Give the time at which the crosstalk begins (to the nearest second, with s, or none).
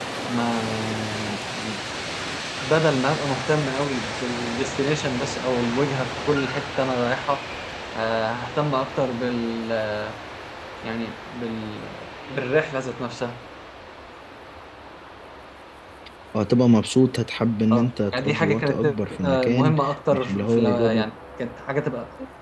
18 s